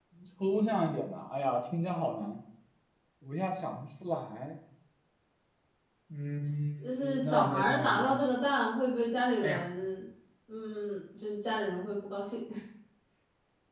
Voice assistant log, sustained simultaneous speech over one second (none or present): present